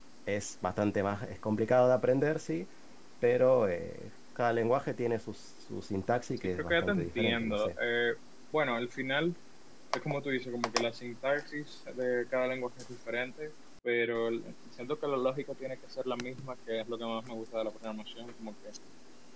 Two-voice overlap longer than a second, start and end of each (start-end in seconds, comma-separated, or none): 6.4-7.7